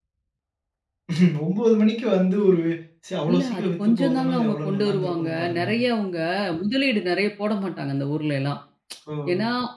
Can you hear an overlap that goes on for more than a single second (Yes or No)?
Yes